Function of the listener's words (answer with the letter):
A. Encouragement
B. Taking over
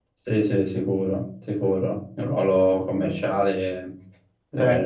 A